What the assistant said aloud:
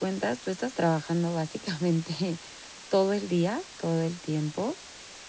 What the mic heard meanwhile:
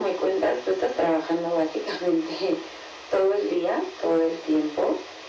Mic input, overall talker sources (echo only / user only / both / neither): echo only